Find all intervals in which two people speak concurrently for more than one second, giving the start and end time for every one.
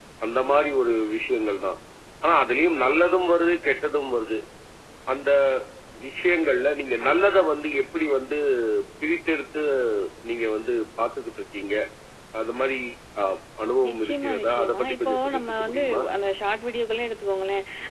13.9-16.0

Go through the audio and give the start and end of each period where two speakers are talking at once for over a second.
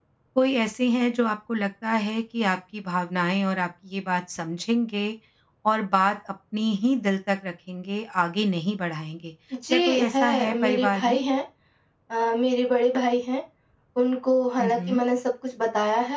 9.7-11.2

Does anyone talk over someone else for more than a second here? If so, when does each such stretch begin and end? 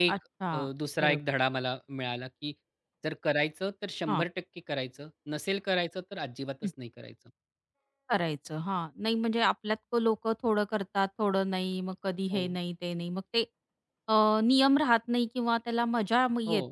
none

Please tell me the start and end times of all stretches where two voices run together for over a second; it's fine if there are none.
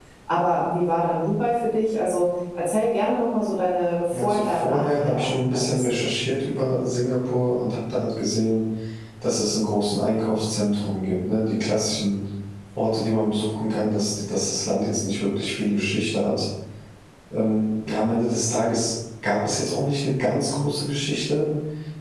4.1-6.0

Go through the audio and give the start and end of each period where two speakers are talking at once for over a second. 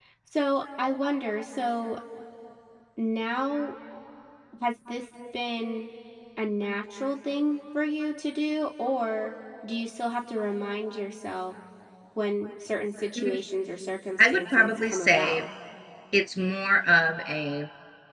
14.2-15.5

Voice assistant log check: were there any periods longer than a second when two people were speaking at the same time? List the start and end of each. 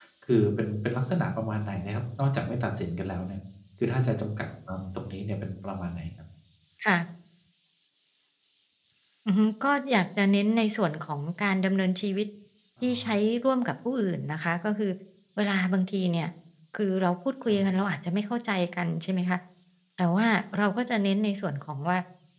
none

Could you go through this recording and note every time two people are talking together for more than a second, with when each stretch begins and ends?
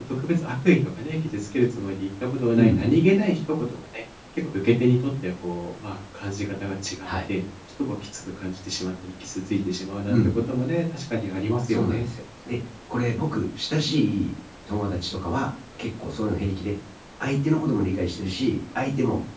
none

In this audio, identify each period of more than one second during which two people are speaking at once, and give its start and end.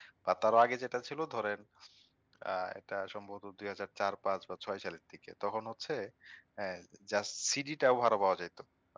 none

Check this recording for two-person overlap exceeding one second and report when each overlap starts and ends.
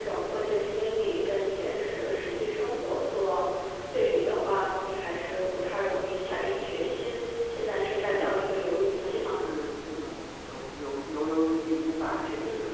8.0-9.4

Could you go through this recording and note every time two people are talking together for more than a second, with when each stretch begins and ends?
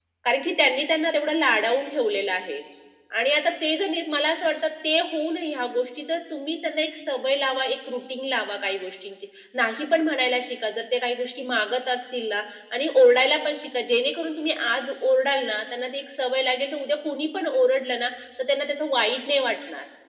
none

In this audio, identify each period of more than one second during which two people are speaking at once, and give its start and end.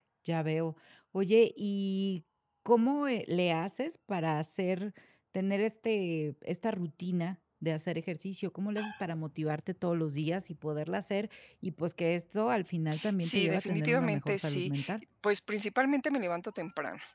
13.2-14.7

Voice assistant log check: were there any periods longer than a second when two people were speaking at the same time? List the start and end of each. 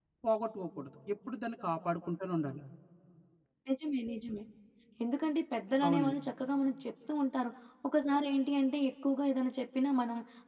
none

